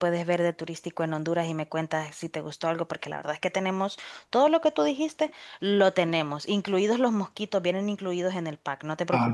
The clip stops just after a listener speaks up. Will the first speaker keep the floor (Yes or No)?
No